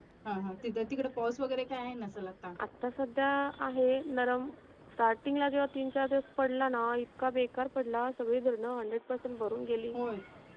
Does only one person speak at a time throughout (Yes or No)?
Yes